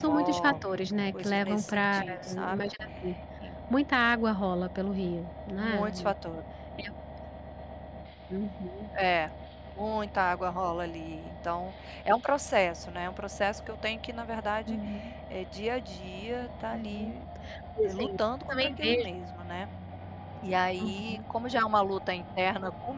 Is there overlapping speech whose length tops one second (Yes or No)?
Yes